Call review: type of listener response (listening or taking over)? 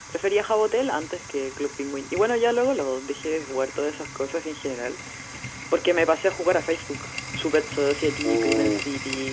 listening